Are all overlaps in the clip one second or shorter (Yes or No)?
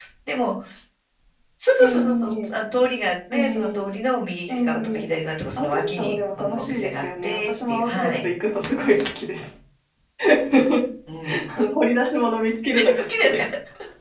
No